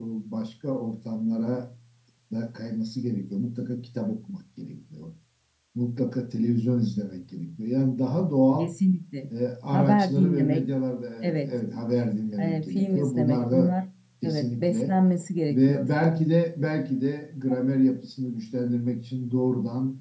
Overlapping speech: Yes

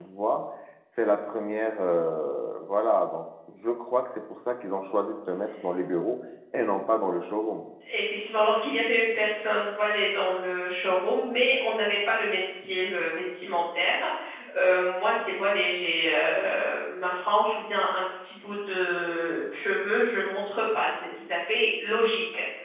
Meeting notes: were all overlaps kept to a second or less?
Yes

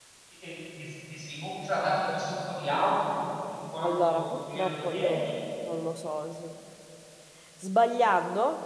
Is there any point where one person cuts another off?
Yes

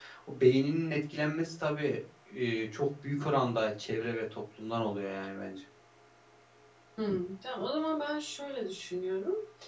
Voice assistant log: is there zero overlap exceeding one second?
Yes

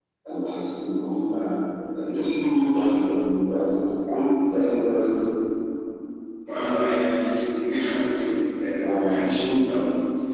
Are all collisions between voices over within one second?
Yes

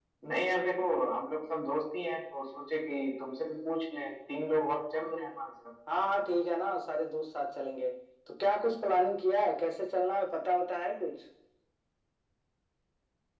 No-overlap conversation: Yes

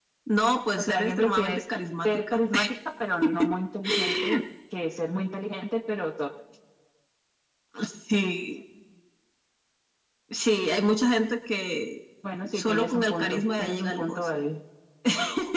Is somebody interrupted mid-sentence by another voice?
Yes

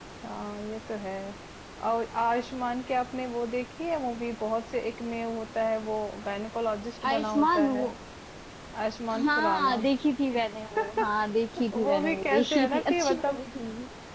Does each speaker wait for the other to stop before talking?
No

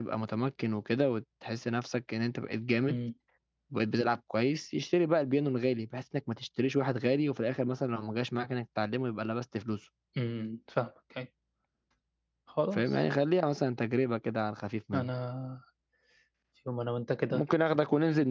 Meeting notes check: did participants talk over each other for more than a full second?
No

